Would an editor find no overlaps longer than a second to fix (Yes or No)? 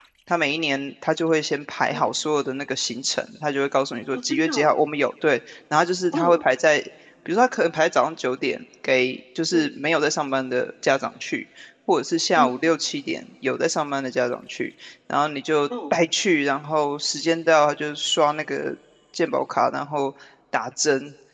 Yes